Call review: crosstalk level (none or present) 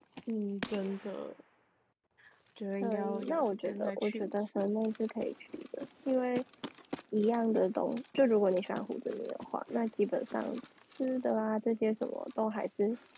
present